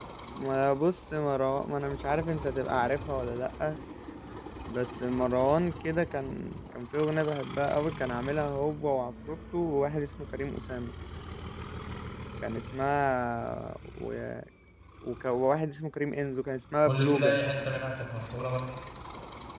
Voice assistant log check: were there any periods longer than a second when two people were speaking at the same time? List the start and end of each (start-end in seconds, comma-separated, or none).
none